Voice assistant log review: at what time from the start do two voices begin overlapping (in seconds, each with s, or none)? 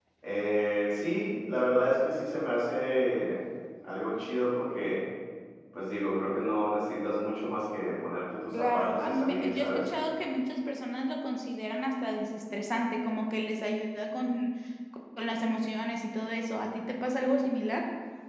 8.5 s